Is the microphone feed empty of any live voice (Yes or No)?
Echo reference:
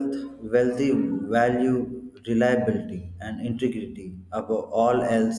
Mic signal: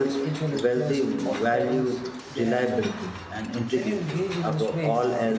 No